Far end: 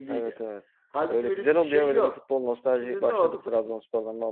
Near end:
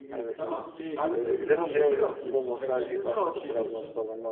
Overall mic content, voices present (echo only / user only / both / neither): both